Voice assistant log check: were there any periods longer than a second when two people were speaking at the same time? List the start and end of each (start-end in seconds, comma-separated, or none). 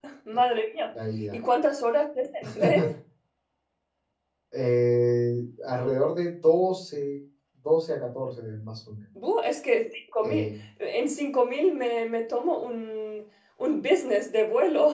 none